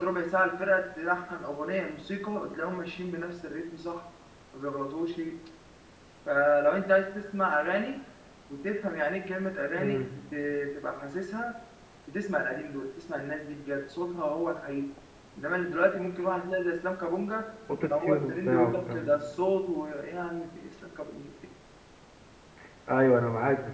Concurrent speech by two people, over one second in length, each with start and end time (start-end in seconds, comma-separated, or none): 17.8-19.2